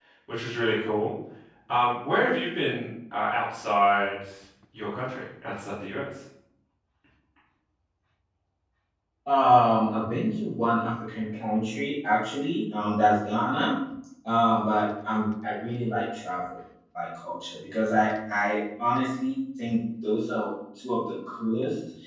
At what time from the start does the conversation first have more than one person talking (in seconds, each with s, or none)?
none